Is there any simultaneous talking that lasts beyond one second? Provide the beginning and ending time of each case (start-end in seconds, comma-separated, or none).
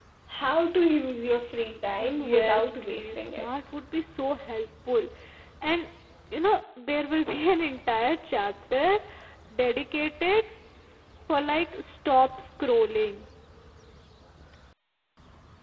2.0-3.5